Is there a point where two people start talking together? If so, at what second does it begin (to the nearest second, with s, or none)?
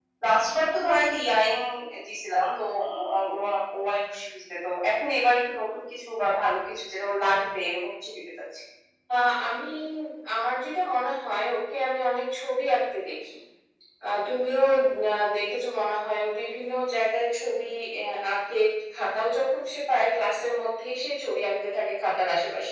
none